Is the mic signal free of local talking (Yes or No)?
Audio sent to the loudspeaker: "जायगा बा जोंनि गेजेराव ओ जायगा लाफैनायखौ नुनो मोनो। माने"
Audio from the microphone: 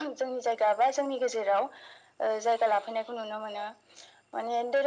Yes